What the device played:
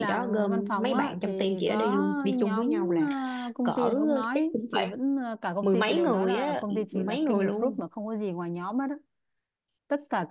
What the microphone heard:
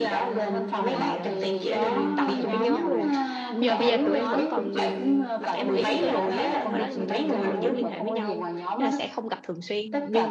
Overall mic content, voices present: both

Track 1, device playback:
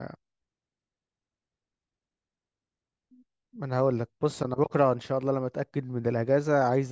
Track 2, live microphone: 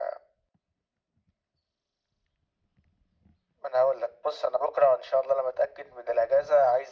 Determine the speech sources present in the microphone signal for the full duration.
echo only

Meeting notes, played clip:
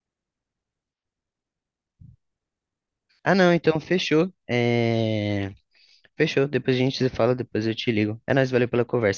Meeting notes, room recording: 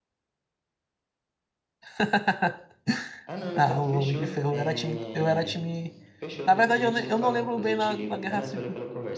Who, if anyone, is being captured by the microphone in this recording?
both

